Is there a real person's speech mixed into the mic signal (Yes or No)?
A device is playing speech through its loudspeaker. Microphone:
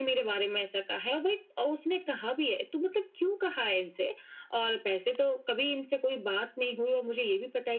No